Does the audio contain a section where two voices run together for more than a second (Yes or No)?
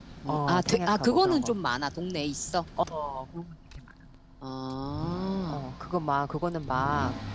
Yes